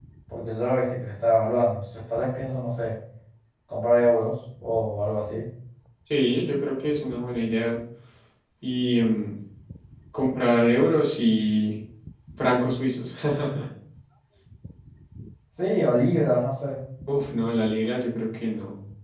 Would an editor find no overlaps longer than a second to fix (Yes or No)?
Yes